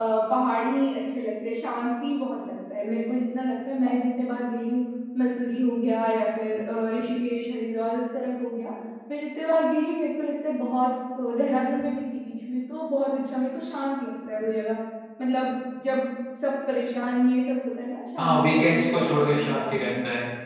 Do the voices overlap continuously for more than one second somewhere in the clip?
Yes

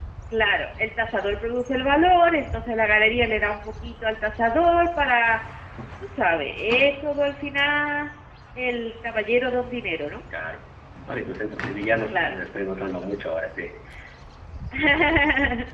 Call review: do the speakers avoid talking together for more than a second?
Yes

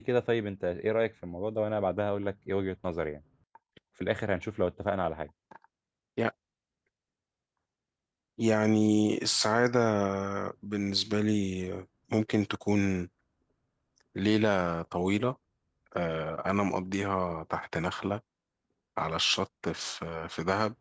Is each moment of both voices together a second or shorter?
Yes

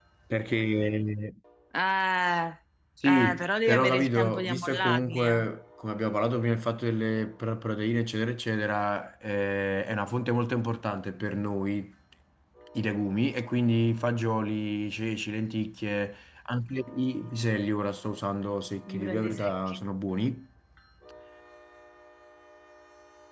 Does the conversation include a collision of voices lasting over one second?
Yes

